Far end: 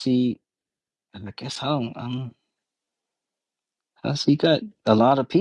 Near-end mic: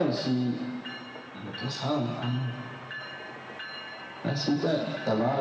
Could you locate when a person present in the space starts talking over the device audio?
none

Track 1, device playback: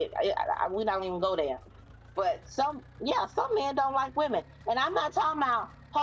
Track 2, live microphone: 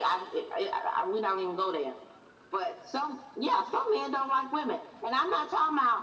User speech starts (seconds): none

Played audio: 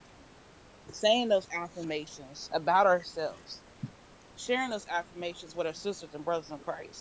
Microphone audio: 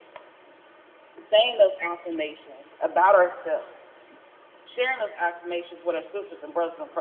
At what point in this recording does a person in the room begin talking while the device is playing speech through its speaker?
none

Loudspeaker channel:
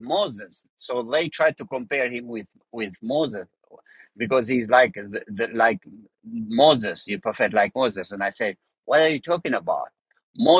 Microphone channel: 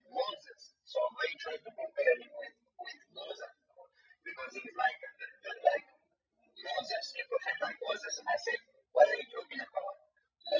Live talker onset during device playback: none

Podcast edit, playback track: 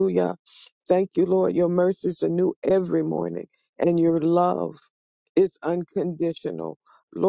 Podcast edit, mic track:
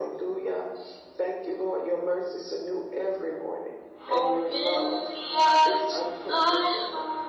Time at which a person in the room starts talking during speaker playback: 4 s

